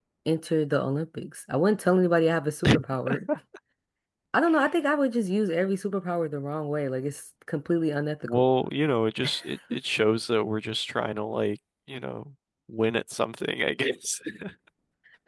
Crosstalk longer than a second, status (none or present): none